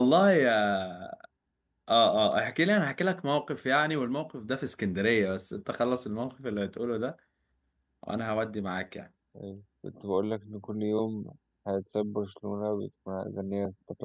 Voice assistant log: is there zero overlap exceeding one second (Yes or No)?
Yes